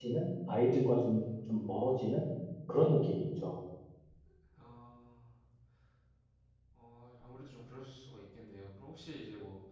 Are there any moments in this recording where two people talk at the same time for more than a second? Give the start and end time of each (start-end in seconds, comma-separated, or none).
none